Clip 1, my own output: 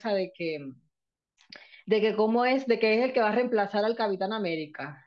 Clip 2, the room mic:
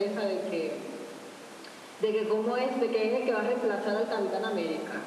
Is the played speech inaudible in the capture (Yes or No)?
No